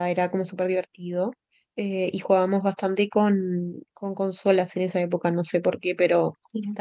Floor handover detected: No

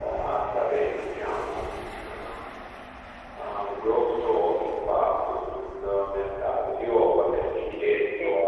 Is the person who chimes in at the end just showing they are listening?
Yes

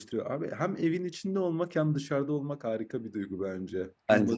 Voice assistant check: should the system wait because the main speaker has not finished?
Yes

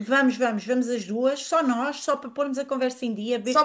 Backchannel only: Yes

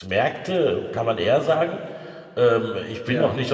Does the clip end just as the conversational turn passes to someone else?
No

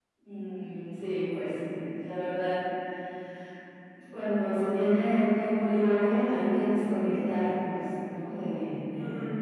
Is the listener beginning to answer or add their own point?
Yes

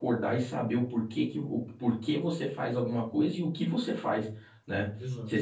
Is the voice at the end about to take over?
No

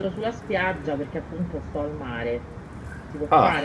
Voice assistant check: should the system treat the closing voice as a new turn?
No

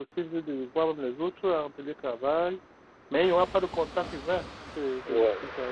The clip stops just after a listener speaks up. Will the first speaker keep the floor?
No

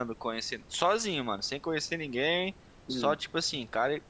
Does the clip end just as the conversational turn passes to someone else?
No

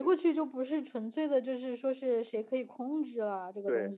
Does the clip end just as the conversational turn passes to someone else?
Yes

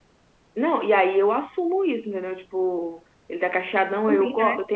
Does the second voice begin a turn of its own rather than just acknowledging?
No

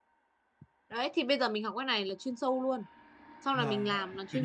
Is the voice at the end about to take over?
Yes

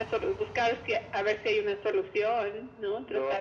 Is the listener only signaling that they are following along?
No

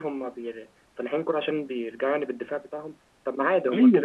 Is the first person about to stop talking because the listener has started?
No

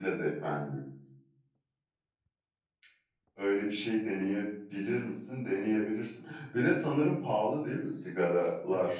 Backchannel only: No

